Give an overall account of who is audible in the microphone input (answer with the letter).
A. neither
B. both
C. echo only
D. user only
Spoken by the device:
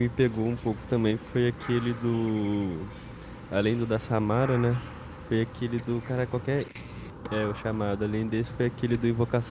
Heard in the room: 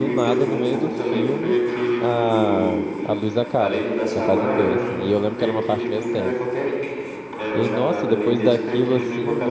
B